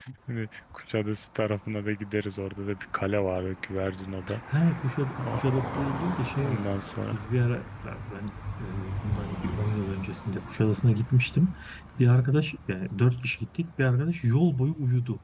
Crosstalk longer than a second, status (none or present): none